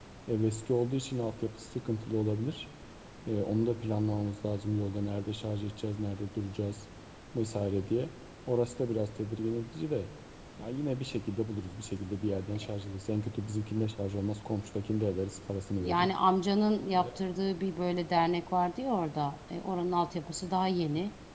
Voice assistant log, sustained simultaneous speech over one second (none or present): none